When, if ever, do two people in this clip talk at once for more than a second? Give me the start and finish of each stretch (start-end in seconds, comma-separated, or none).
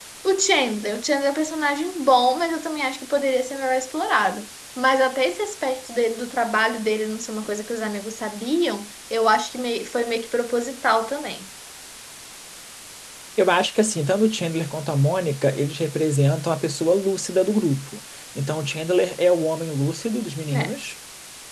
none